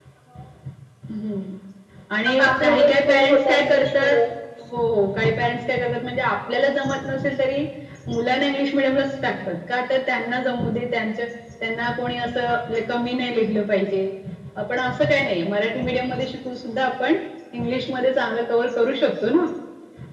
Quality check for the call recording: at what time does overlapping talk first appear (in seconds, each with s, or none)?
2.4 s